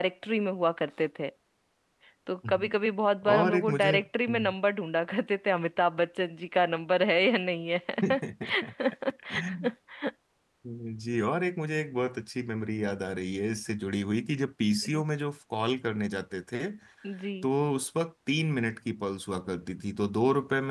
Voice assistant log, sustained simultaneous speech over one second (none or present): present